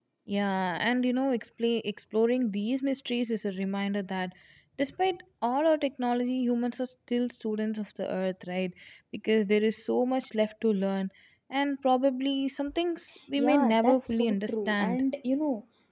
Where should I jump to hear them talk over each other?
13.4 s

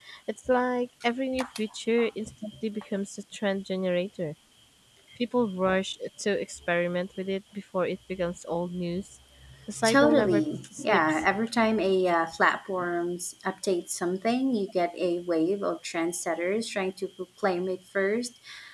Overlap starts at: 9.8 s

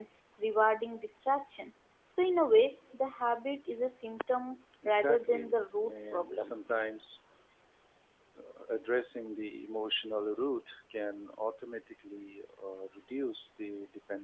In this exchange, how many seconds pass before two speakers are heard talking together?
4.8 s

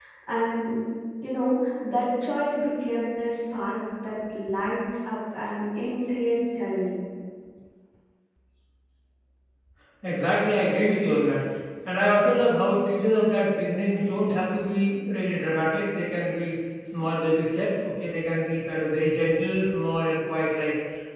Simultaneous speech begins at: none

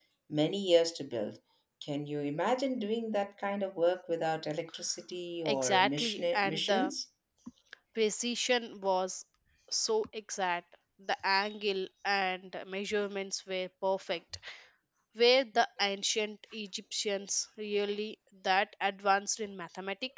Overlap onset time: 5.5 s

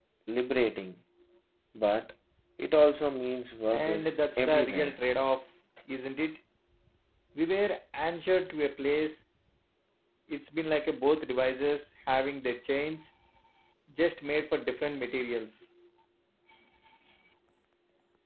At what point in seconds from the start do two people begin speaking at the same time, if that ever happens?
3.7 s

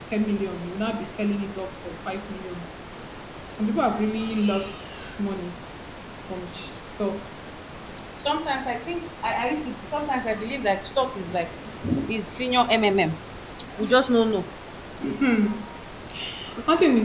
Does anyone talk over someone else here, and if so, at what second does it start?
none

